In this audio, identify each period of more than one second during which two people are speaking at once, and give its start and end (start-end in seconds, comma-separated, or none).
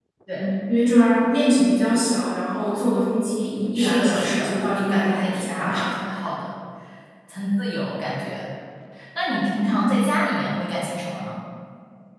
3.8-5.9